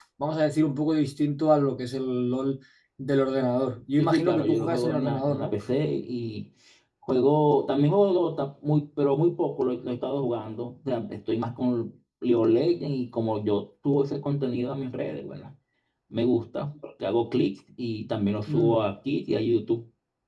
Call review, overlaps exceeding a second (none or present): present